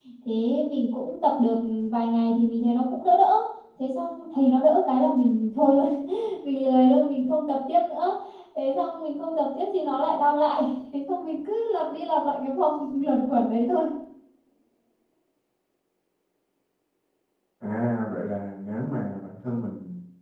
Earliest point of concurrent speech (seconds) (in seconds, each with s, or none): none